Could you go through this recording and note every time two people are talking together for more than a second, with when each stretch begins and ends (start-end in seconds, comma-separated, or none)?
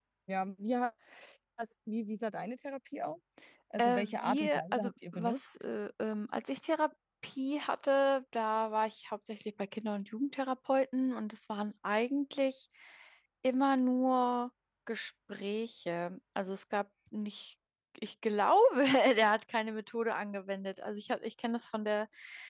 3.8-5.4